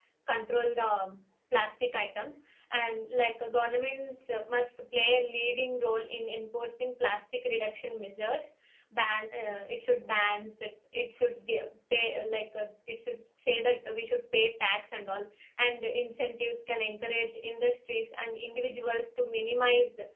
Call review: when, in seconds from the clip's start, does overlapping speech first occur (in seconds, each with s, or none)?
none